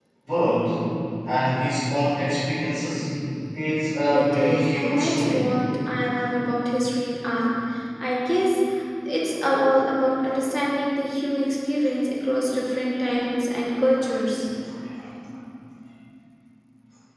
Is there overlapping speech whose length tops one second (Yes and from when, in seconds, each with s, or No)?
Yes, from 4.1 s